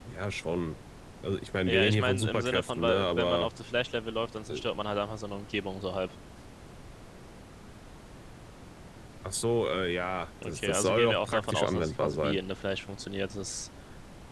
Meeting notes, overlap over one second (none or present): present